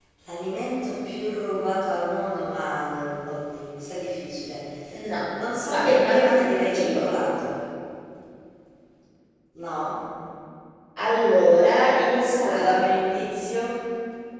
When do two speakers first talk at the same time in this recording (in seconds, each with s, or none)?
5.7 s